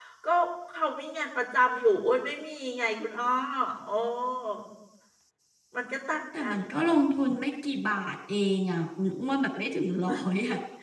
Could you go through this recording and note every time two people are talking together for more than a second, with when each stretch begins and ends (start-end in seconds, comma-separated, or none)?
none